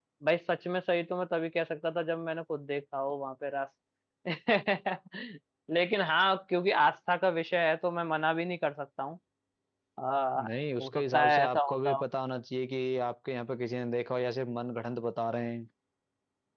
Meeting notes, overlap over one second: present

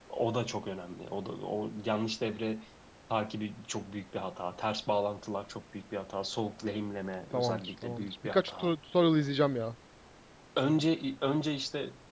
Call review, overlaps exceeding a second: present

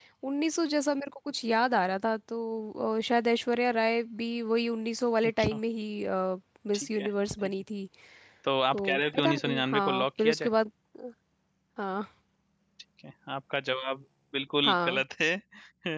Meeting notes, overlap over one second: present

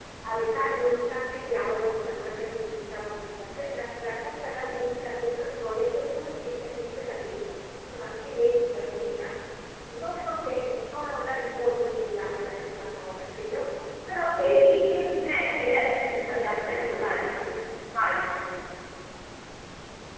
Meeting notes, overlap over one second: present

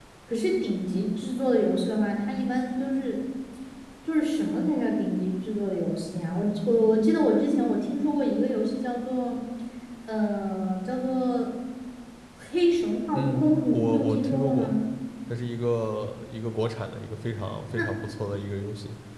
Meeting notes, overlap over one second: present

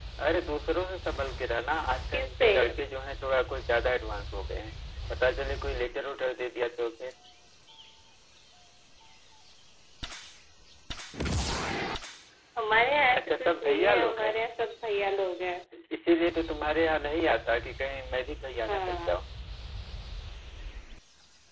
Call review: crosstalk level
present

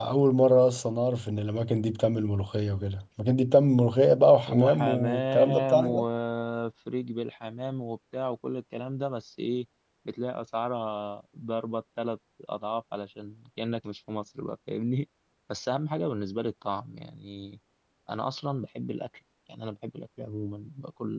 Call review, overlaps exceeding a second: present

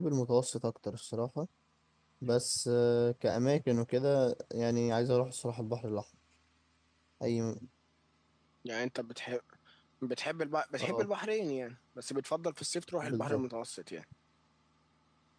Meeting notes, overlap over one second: none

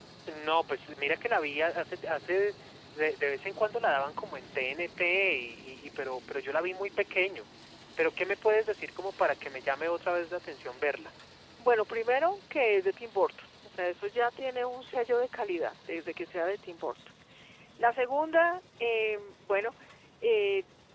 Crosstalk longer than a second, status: none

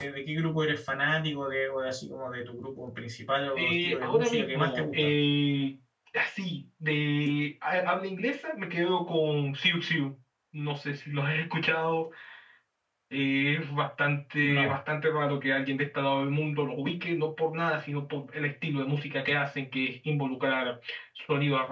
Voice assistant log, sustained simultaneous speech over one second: present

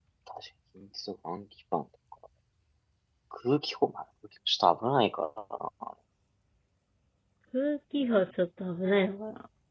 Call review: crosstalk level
none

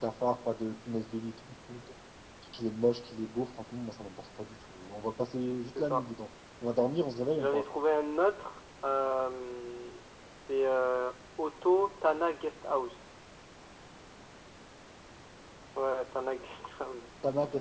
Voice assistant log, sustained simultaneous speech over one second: none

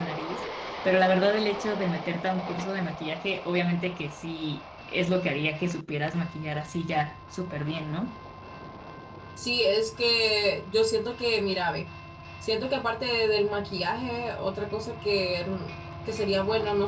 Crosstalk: none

